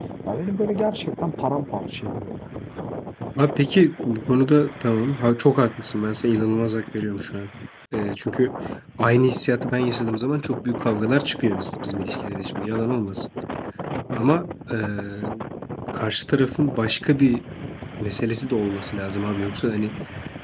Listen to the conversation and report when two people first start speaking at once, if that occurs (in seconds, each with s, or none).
none